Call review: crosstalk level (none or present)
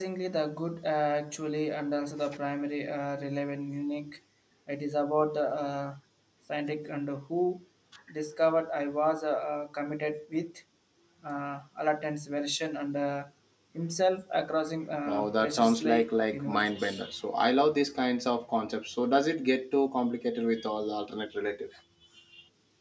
present